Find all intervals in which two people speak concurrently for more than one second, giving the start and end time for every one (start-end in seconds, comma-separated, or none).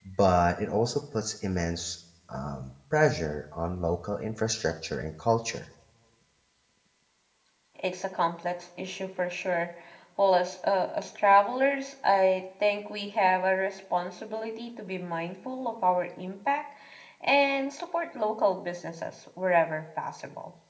none